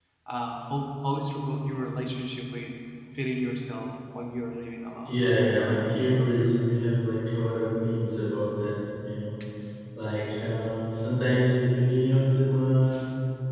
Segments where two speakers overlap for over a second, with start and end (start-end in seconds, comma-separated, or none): 5.0-6.5